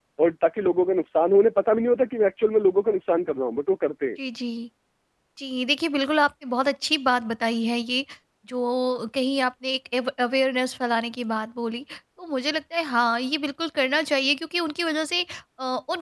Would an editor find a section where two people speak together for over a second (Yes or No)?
No